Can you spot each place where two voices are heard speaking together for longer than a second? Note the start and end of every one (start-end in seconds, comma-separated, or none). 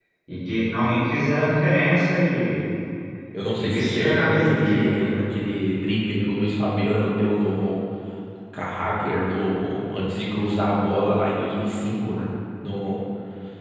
3.6-5.2